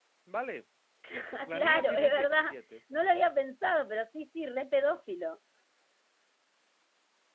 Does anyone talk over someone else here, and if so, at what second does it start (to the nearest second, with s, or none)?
1 s